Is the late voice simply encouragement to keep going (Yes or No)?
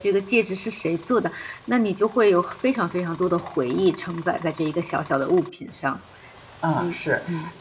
No